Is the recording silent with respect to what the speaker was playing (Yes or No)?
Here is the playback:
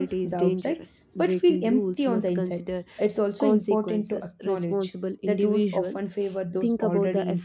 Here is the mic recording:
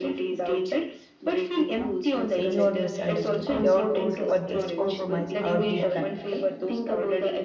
No